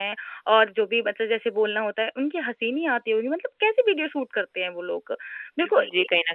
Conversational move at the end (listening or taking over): taking over